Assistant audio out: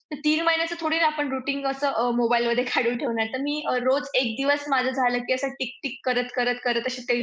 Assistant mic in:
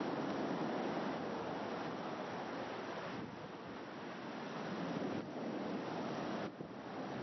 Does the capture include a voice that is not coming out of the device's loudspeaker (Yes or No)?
No